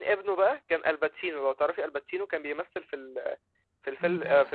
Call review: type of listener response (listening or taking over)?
listening